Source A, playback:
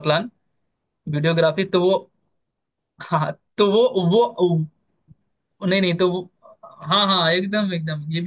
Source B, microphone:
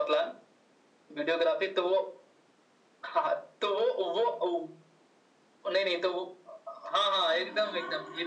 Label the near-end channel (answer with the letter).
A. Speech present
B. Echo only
A